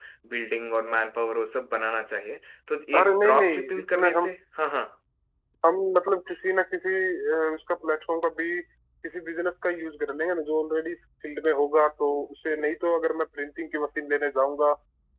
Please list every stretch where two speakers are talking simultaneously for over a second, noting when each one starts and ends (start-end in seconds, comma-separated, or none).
3.0-4.3